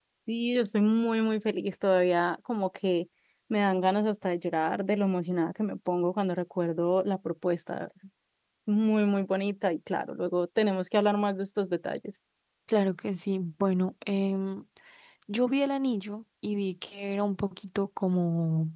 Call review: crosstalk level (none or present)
none